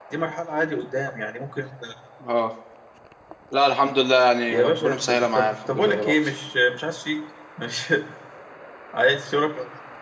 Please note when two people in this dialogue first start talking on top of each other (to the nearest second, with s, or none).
4 s